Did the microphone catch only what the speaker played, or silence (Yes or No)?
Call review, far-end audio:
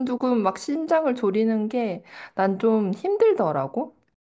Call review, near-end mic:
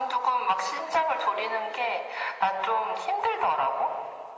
Yes